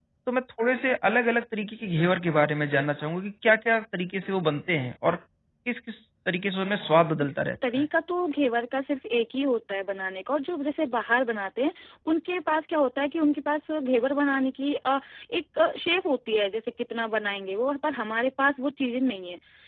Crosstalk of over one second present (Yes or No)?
No